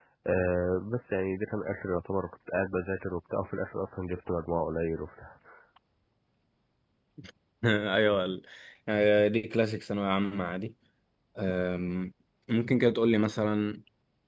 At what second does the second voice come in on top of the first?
none

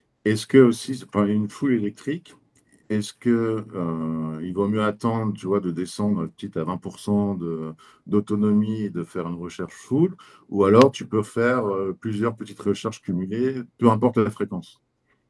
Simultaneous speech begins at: none

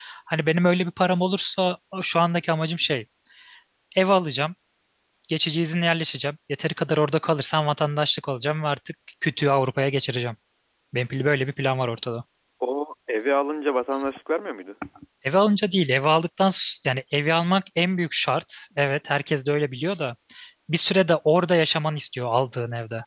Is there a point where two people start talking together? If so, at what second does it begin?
none

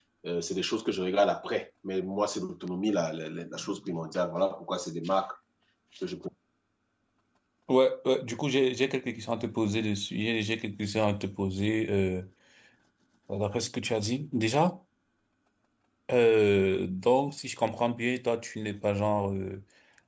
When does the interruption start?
none

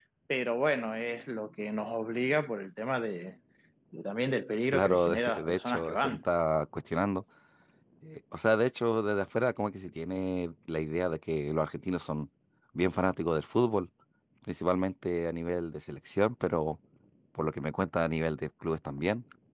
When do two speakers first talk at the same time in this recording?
5 s

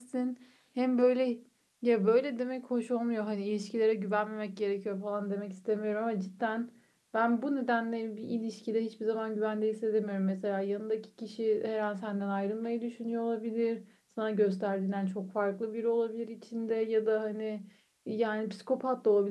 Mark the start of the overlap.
none

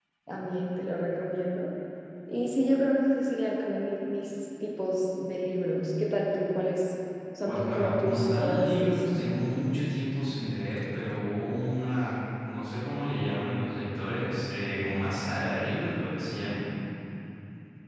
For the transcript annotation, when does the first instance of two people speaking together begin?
7 s

